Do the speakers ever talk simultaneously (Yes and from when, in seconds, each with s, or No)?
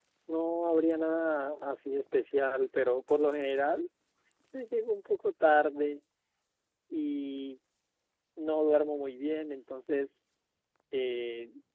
No